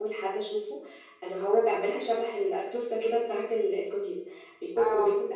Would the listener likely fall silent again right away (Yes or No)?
Yes